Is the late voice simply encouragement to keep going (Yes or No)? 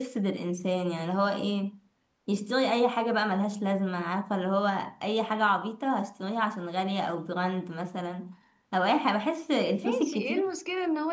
No